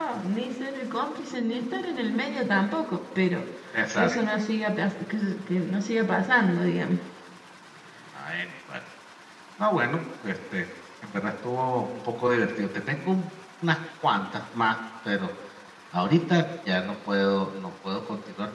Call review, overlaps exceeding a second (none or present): none